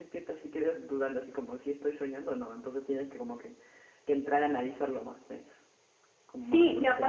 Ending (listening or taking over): taking over